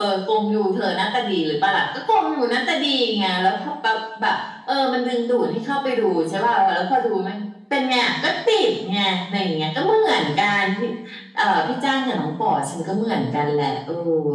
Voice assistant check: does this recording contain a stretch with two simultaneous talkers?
No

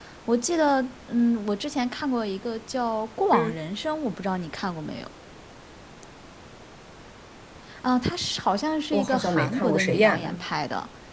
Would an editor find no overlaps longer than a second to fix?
No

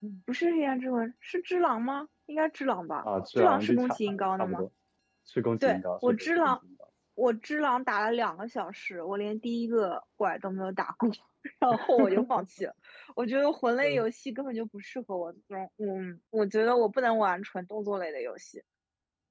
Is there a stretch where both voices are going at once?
Yes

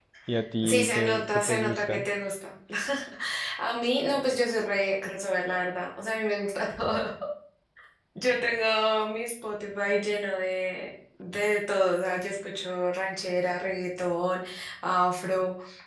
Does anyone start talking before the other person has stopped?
Yes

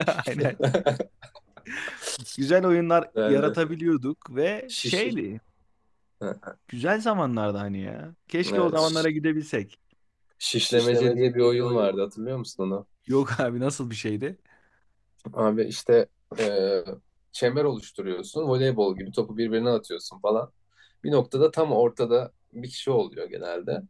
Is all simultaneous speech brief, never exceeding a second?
No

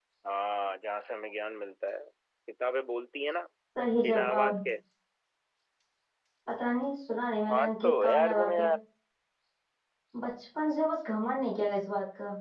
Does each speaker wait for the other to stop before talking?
No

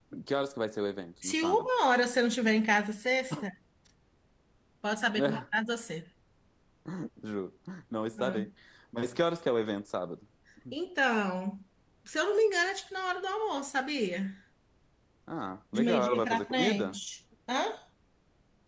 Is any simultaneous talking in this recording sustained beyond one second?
Yes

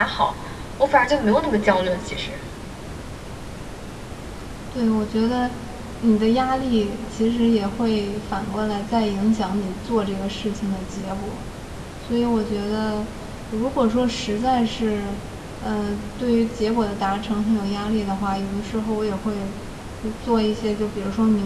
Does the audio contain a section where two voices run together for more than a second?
No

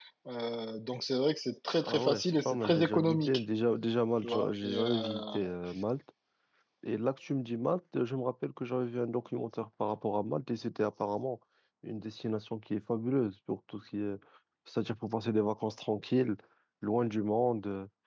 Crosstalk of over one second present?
Yes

